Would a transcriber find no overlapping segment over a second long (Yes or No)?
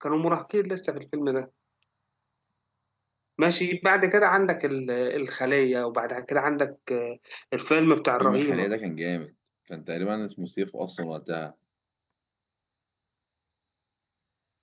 Yes